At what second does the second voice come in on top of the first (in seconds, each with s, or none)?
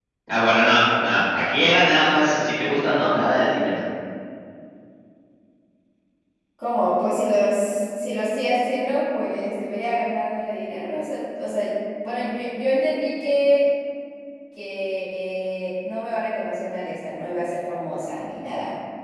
none